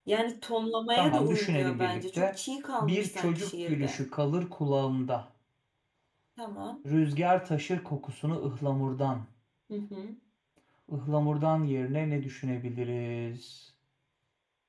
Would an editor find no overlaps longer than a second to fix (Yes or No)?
No